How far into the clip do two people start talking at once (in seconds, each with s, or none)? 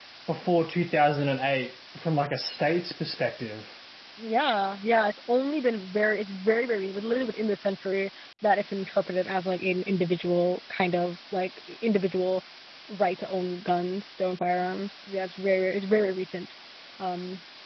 none